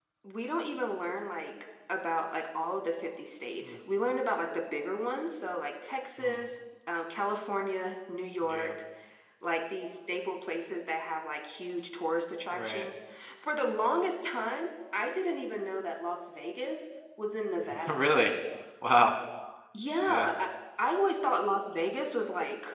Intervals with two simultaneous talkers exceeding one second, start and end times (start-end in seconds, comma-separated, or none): none